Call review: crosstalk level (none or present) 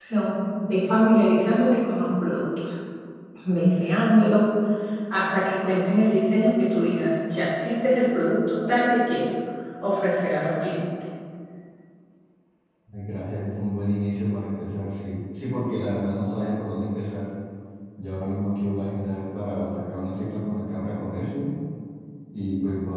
none